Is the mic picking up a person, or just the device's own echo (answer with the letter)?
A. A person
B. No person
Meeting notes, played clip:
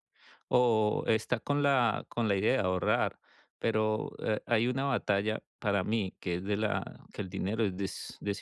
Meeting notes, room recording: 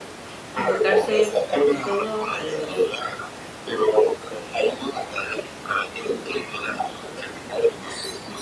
A